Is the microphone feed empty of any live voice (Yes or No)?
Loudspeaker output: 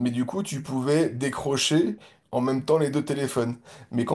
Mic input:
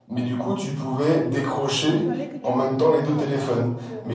No